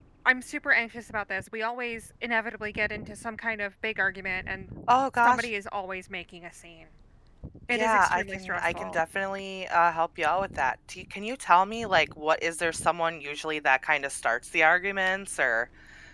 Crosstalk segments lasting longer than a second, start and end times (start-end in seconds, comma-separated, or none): 7.7-9.0